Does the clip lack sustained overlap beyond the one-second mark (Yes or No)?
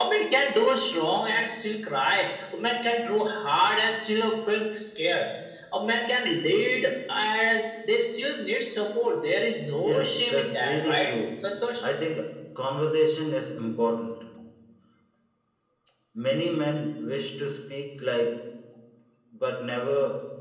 No